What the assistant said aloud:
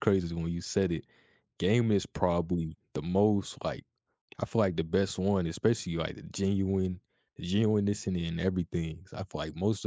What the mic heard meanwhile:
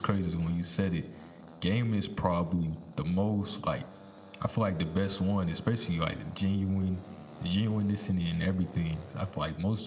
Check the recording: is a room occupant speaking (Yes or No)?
No